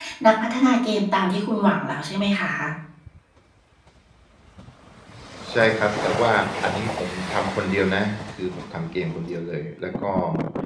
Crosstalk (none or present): none